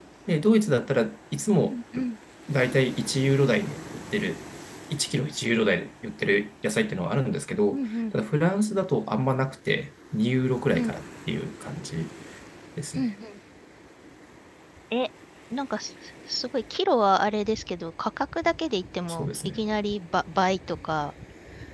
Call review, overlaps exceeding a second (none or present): none